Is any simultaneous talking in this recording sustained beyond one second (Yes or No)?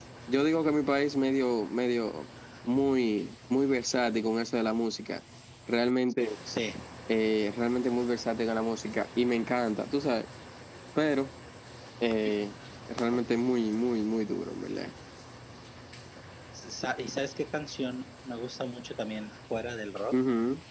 No